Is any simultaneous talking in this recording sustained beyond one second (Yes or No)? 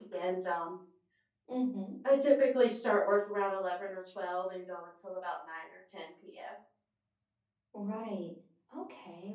No